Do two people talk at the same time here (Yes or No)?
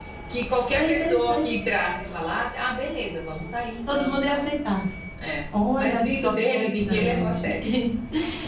Yes